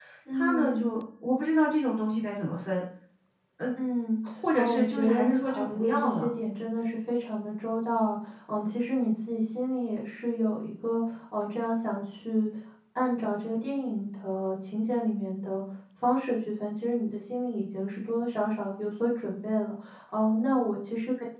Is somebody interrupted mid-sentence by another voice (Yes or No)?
Yes